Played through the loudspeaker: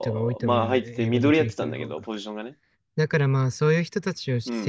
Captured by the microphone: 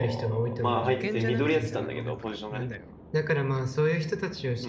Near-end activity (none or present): present